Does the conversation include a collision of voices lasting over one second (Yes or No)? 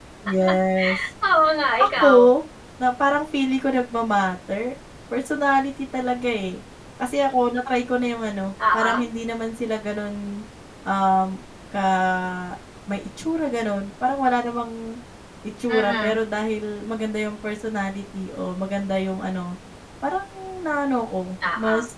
No